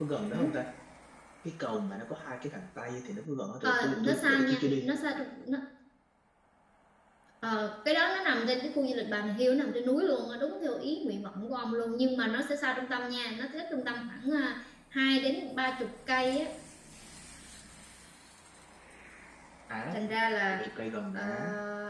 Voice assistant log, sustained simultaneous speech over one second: present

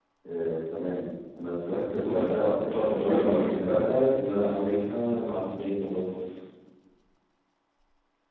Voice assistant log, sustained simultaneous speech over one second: present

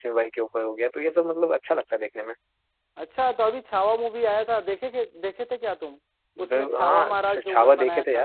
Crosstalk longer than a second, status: present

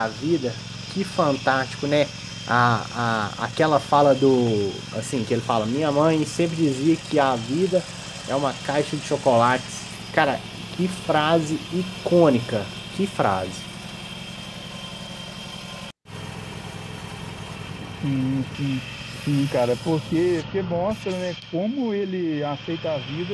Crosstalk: none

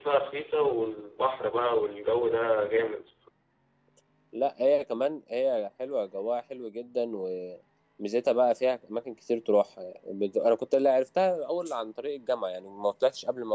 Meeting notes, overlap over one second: none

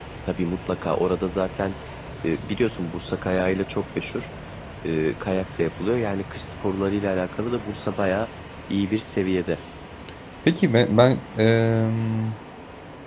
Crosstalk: none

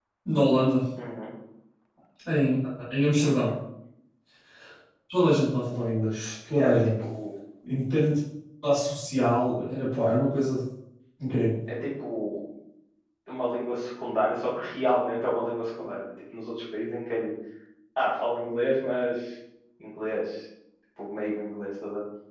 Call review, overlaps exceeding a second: none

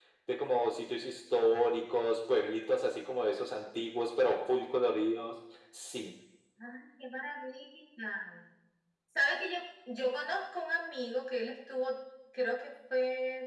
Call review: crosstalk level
none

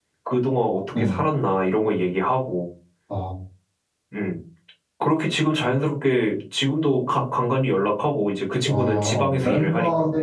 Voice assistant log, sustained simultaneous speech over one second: present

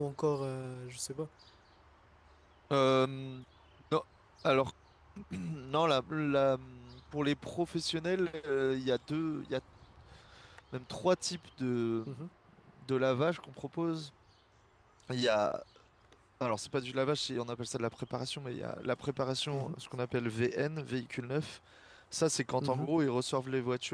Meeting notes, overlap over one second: none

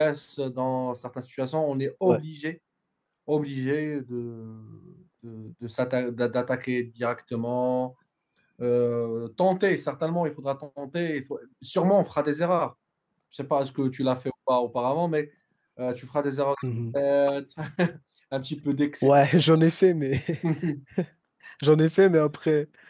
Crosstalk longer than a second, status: none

